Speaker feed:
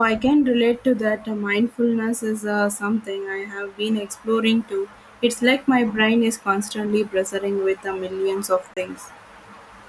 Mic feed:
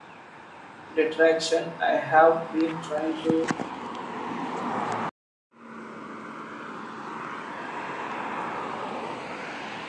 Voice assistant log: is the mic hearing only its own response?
No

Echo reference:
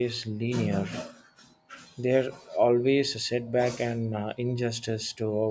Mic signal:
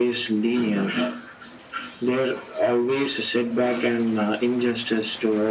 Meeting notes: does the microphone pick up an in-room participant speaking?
No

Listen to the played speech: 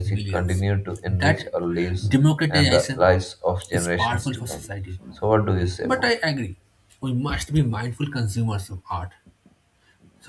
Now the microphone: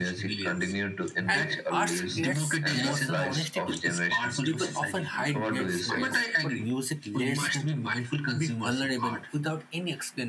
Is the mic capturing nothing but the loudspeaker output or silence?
No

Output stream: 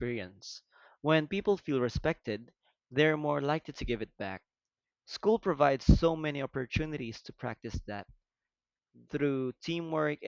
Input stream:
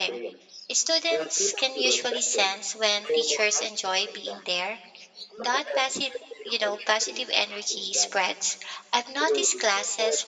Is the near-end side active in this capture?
Yes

